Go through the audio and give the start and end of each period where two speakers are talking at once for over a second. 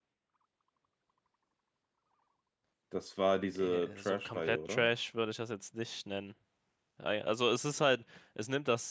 3.5-4.9

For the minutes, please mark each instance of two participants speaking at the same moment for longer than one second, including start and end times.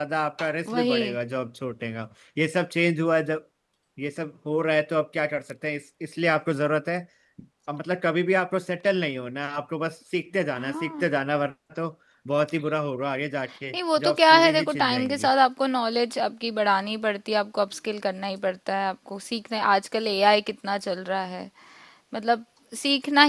13.7-15.3

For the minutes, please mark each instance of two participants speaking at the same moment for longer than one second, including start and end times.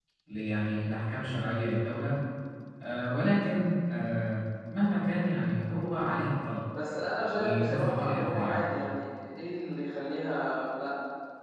7.3-8.6

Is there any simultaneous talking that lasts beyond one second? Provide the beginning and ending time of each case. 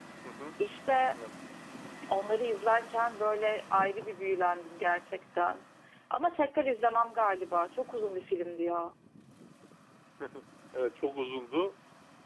none

